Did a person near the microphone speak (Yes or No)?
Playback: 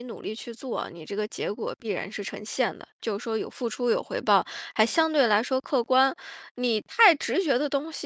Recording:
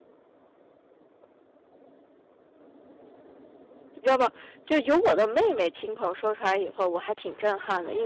Yes